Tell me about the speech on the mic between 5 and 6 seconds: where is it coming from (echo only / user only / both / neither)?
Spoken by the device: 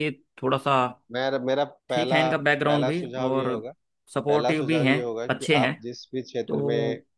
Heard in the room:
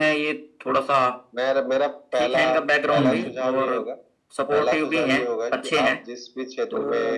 echo only